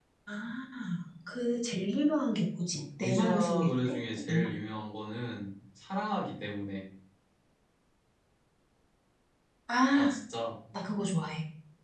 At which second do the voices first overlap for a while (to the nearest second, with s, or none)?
3 s